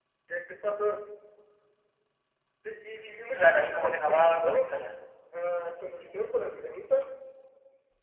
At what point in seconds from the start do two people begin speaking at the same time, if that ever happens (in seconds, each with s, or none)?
3.4 s